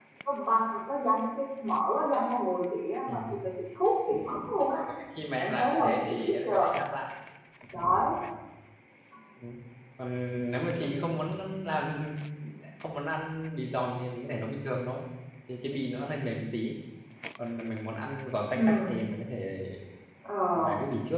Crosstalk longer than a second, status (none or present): present